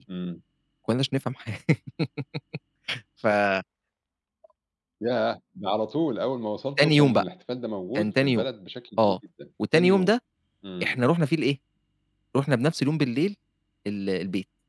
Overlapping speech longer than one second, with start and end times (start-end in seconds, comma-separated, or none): none